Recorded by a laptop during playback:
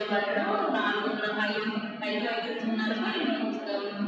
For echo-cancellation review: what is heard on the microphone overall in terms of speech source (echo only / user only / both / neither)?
both